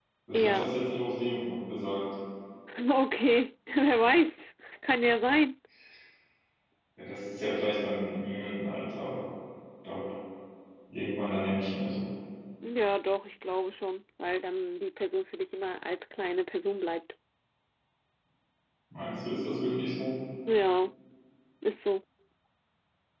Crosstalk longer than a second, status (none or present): none